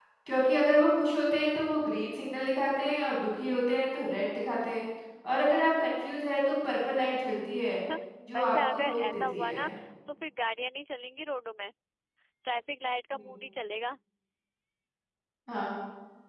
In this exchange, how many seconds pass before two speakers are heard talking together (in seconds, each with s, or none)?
8.3 s